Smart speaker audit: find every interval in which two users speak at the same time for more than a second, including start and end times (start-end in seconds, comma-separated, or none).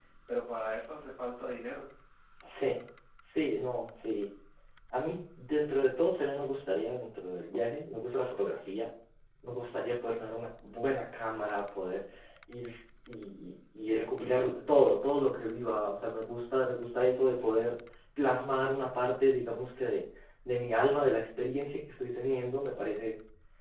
none